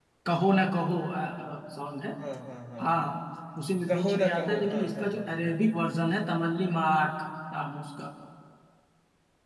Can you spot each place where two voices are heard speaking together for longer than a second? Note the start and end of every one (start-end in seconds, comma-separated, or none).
3.9-5.5